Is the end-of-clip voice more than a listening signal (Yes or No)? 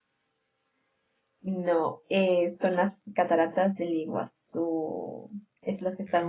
No